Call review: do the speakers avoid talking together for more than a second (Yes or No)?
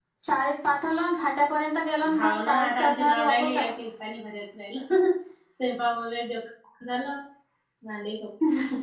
No